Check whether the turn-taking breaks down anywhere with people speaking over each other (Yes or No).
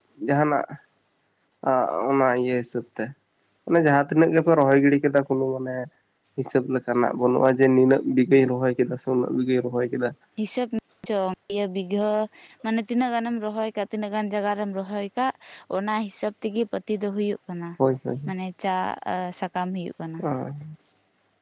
No